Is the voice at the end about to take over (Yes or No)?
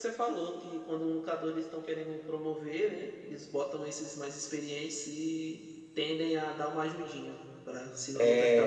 Yes